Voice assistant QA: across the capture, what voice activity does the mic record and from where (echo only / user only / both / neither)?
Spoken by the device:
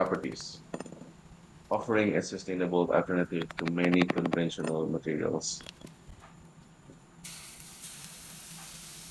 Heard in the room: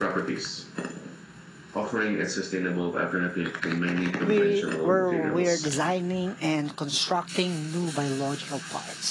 both